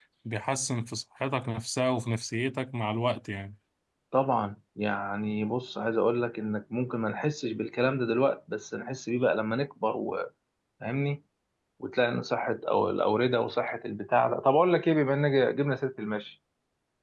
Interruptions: none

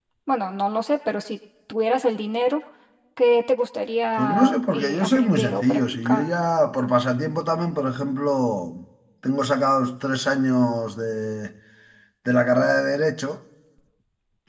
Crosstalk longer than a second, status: present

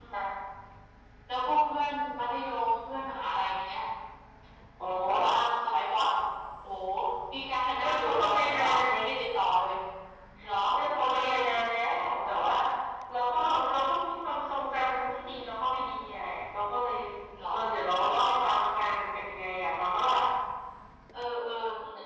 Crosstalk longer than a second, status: present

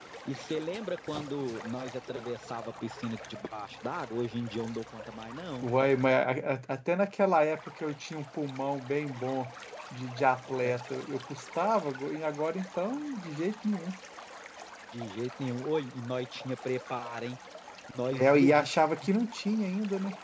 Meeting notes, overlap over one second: none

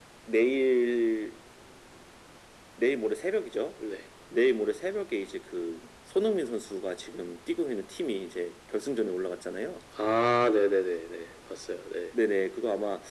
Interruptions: none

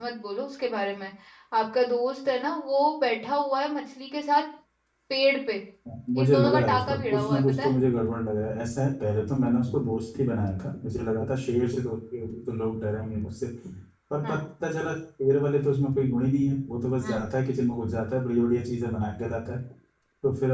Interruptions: present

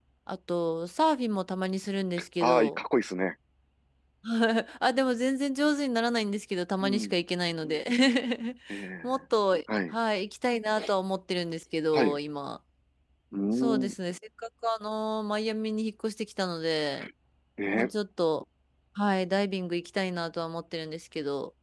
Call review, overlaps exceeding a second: none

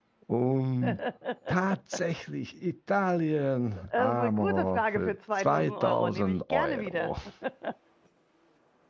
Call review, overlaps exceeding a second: present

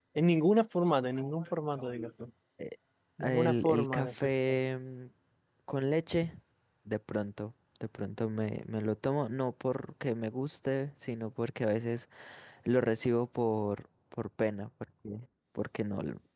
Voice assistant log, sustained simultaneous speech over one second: present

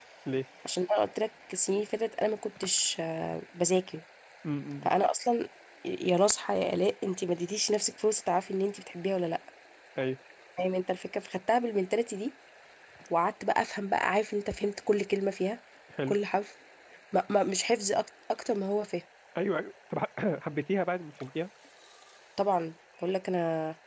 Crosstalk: none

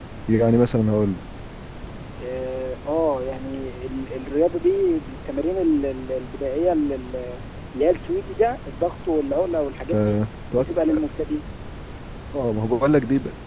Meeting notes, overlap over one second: none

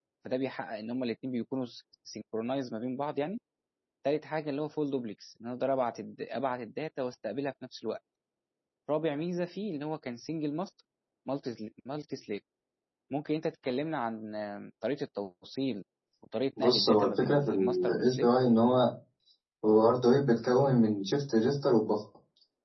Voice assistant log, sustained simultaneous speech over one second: present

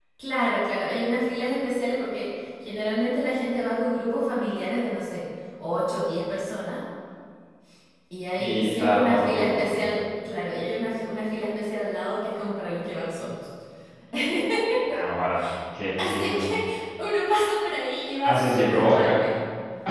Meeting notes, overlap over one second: present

